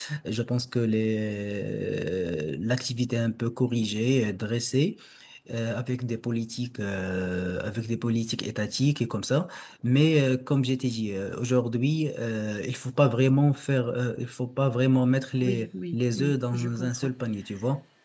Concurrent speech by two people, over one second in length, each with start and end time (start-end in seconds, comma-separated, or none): 15.4-17.1